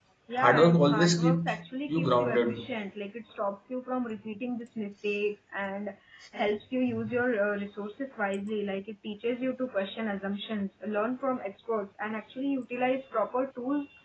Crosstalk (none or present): present